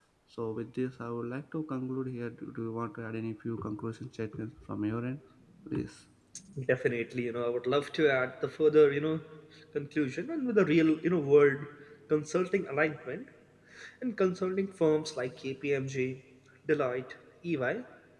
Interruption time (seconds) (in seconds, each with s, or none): none